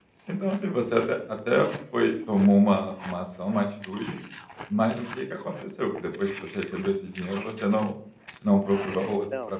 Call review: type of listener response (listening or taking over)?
taking over